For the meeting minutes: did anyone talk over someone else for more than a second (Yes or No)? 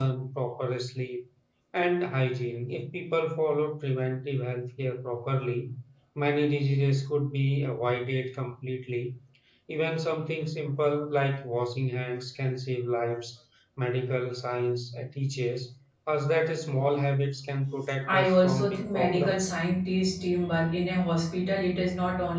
Yes